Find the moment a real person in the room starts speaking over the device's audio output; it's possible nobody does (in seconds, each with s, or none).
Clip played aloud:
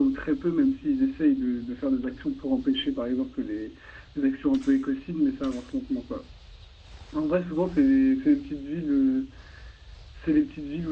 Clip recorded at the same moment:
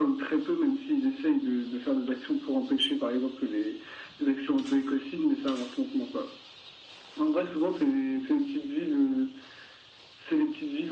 none